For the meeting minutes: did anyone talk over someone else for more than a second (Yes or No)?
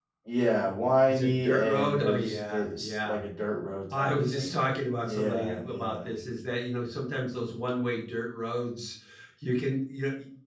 Yes